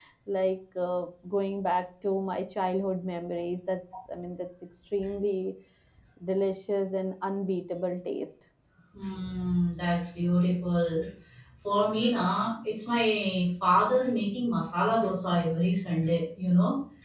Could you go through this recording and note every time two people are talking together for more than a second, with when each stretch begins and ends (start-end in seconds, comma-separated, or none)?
none